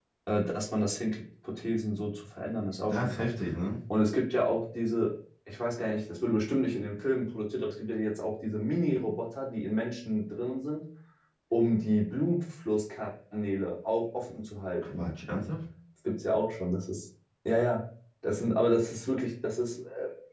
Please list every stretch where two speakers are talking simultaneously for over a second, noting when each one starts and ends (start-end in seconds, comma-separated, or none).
none